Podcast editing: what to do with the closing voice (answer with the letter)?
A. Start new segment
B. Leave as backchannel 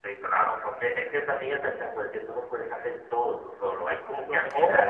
B